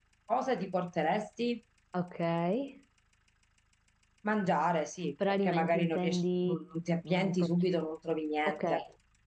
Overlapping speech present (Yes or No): Yes